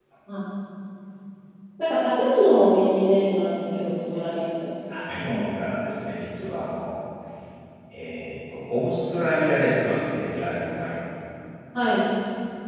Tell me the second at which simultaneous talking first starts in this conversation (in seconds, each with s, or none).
none